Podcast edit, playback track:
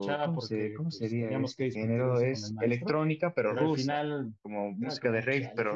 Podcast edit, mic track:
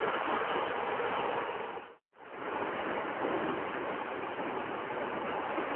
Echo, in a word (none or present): none